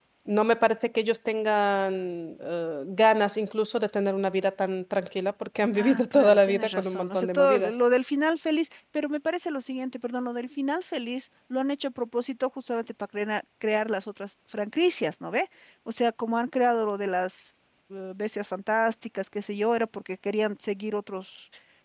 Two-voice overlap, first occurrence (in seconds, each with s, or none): 5.8 s